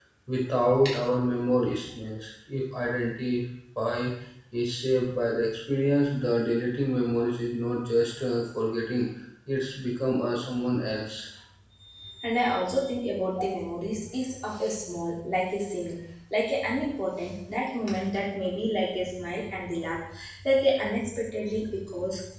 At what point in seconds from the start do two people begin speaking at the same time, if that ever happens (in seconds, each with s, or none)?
none